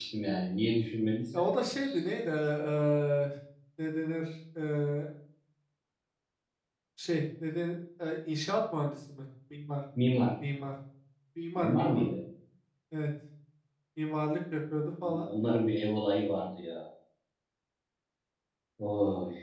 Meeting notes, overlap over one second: none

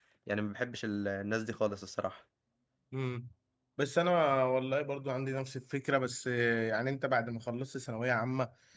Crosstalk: none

